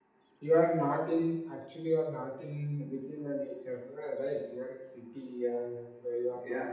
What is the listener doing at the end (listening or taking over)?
taking over